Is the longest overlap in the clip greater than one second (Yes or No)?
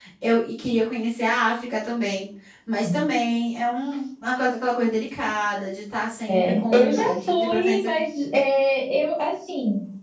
Yes